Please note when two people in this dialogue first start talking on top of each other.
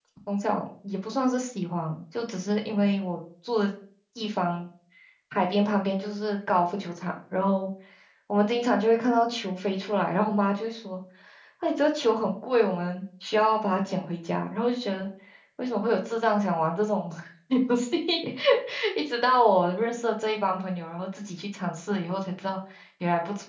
none

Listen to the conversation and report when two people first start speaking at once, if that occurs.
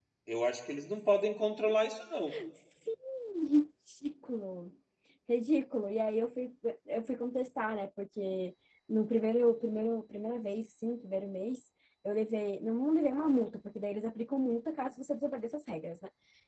none

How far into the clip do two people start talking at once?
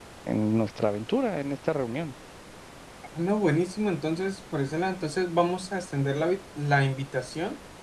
none

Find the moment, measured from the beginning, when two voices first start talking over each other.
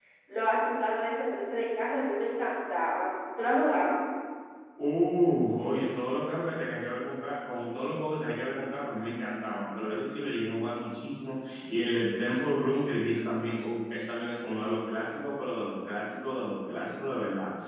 none

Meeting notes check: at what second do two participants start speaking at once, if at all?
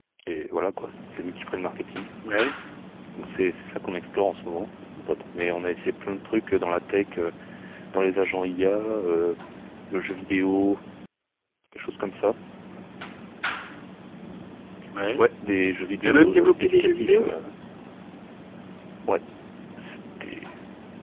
16 s

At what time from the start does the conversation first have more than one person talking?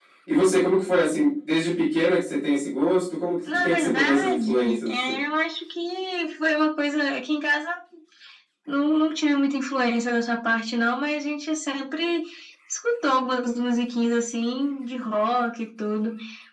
3 s

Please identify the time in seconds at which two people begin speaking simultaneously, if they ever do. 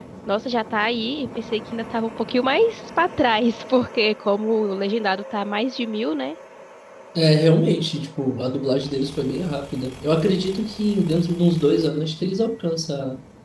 none

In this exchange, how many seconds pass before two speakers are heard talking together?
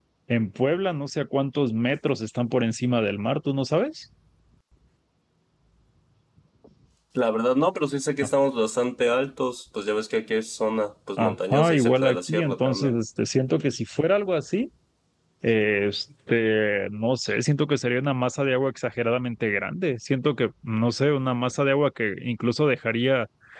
11 s

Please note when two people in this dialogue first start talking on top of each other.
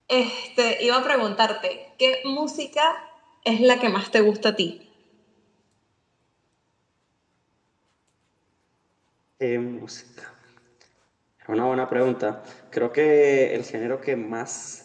none

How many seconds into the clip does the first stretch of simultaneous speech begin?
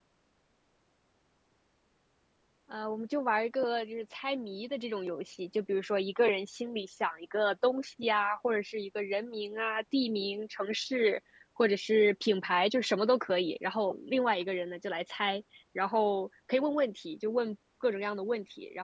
none

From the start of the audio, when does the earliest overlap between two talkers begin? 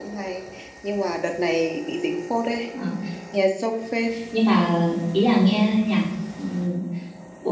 none

